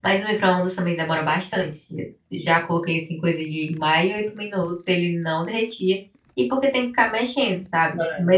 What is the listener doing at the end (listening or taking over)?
listening